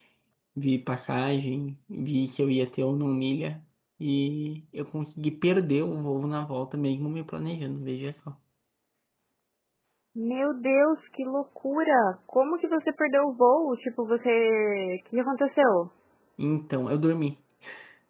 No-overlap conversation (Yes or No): Yes